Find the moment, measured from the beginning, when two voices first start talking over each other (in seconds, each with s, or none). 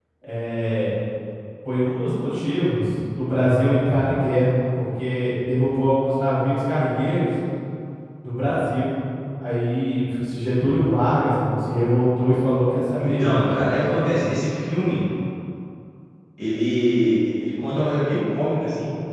13.0 s